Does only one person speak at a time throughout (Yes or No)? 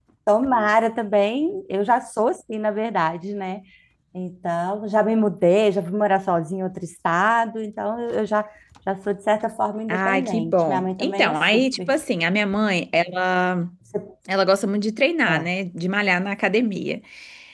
No